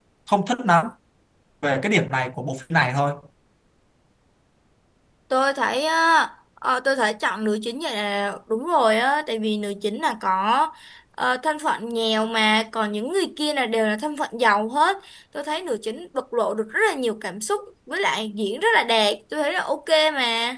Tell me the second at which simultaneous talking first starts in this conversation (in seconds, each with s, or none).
none